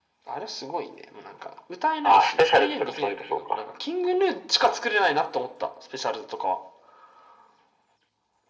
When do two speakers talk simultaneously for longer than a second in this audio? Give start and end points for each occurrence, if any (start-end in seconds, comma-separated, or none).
2.0-3.4